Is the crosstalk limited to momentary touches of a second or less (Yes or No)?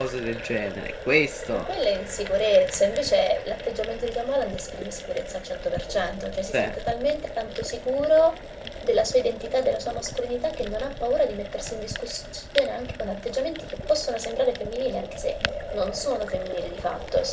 Yes